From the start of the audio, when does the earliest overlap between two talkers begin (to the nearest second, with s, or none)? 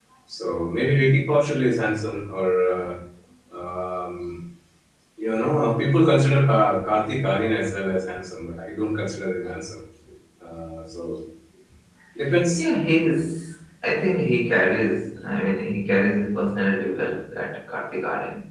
none